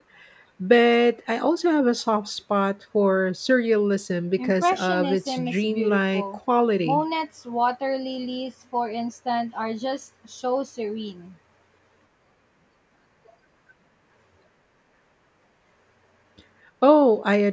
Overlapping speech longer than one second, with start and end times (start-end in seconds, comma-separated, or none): 4.4-6.2